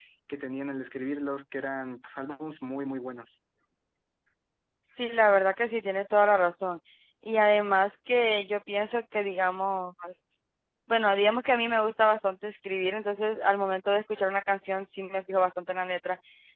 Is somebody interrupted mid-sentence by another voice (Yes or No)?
No